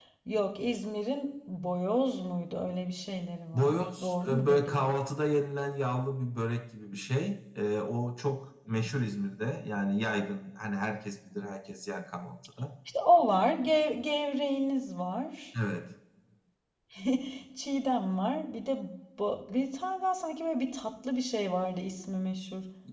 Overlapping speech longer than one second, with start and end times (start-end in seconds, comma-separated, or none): 3.5-4.8